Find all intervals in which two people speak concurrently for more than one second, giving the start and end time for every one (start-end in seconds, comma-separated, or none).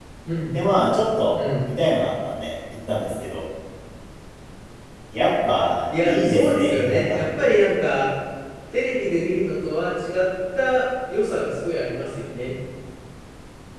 6.0-7.5